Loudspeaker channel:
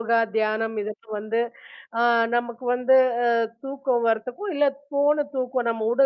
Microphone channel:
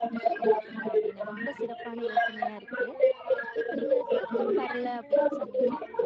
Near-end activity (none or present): present